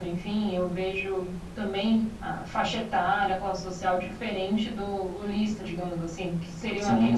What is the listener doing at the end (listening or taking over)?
listening